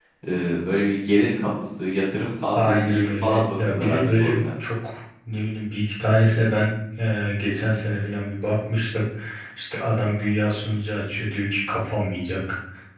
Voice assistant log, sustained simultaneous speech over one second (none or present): present